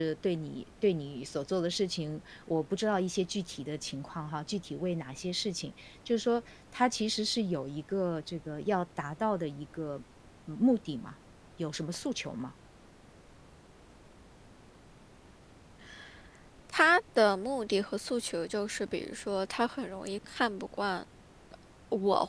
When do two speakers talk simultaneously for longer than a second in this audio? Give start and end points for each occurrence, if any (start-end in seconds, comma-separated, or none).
none